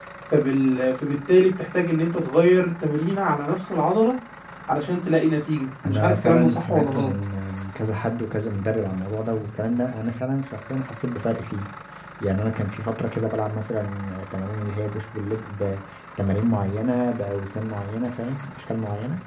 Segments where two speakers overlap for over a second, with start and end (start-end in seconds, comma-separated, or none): 5.8-7.1